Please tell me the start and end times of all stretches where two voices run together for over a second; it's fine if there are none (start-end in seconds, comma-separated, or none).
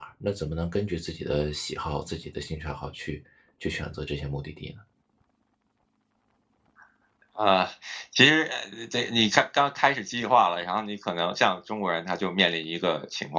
none